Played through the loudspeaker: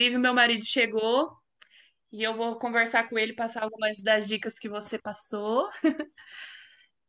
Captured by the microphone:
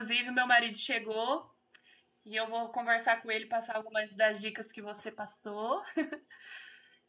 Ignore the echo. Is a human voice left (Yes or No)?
No